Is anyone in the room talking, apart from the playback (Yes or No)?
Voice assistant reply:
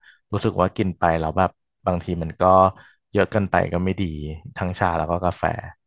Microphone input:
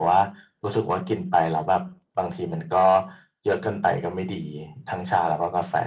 No